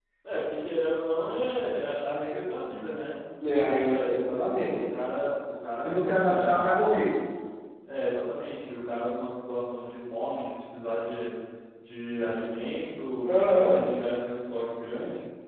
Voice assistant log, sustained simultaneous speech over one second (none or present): present